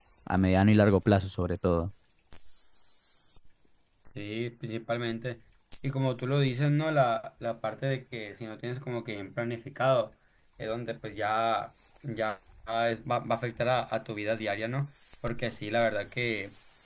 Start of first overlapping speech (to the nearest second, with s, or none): none